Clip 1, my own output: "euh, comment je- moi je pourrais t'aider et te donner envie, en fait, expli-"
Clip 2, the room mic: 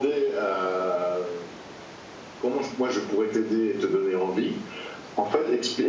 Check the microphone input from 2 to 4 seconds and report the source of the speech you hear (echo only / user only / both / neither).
echo only